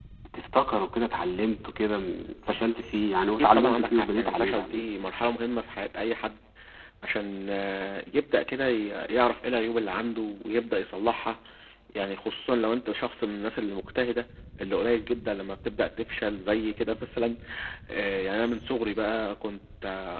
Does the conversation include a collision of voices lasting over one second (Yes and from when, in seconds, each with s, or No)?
Yes, from 3.4 s